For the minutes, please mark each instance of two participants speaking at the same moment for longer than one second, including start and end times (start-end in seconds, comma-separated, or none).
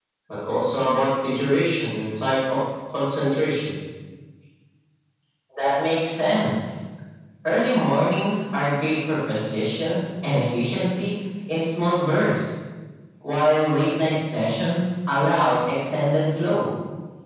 none